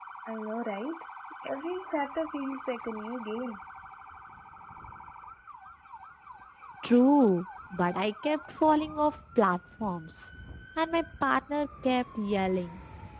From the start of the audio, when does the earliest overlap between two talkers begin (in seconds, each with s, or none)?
none